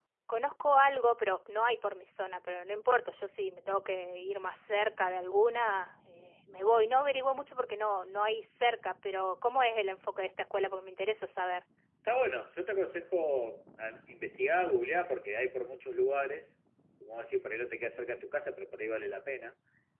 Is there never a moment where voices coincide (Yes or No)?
Yes